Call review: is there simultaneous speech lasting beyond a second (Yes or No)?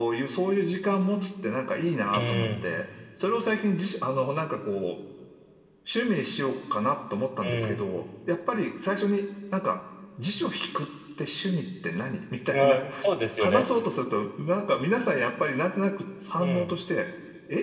No